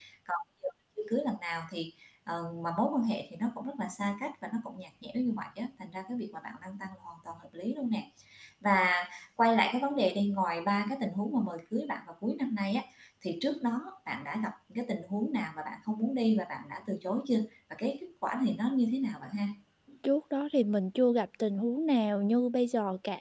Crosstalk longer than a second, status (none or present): none